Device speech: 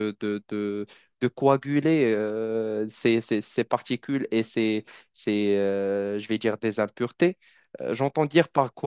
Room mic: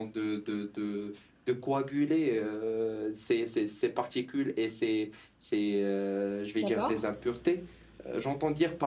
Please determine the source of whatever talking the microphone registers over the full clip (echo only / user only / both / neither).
both